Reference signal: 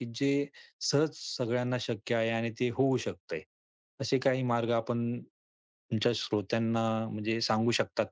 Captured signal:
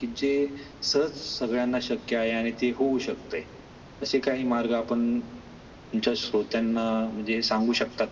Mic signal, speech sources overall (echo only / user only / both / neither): echo only